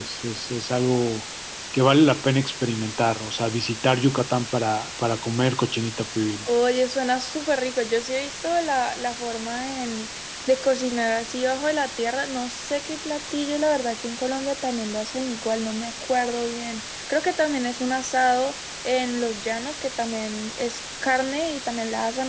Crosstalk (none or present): none